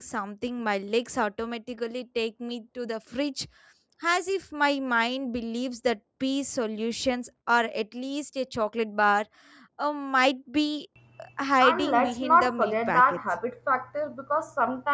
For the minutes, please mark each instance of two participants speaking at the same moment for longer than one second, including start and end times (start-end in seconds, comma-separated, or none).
11.6-13.2